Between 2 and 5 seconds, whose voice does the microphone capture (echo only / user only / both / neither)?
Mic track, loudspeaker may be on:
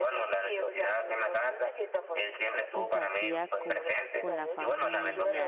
both